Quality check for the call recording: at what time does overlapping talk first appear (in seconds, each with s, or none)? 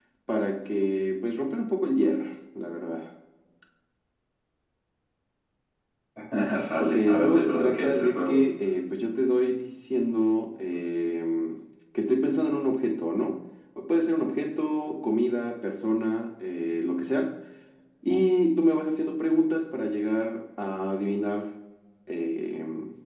6.8 s